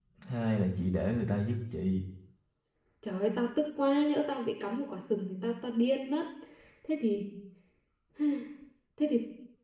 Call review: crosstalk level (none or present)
none